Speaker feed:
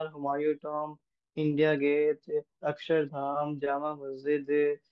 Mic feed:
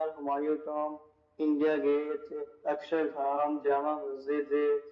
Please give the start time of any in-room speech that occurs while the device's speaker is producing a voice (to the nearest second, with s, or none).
none